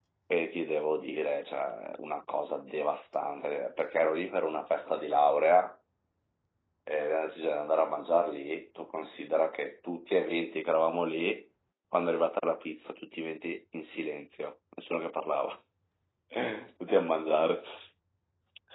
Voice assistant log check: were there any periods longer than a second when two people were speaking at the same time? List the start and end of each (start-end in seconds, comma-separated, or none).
none